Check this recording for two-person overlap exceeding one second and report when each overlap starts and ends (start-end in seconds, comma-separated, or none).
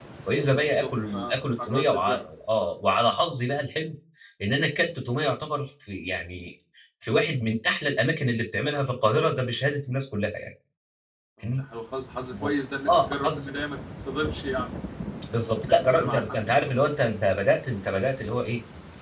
0.6-2.3, 15.7-16.9